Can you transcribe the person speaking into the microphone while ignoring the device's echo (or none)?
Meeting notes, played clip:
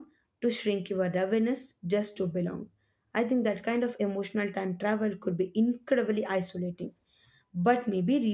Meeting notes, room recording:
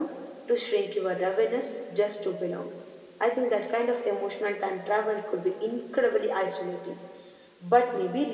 none